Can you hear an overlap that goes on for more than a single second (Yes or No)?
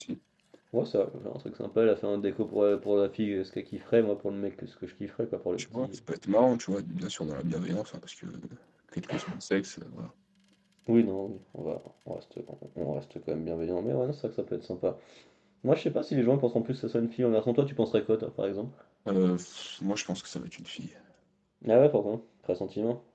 No